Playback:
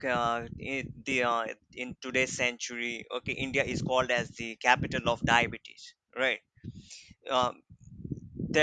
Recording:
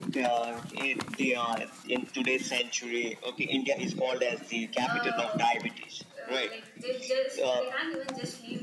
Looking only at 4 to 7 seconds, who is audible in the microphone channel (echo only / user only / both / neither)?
both